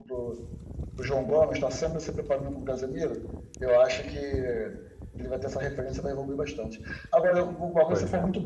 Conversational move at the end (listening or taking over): listening